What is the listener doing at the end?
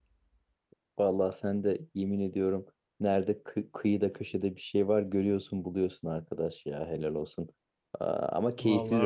listening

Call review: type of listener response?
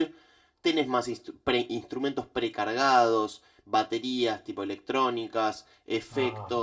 listening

